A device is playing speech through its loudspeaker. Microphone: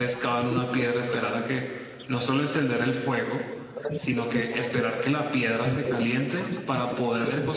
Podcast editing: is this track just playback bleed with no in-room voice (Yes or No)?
No